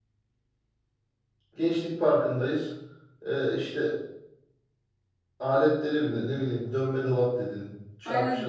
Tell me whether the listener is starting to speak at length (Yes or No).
Yes